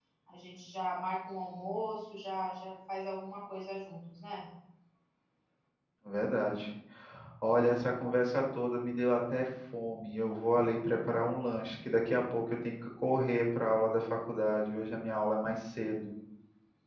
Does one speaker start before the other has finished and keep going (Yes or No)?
No